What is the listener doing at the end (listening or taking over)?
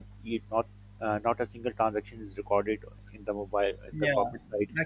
taking over